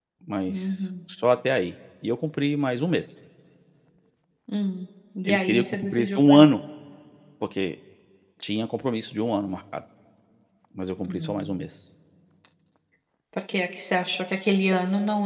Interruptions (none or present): present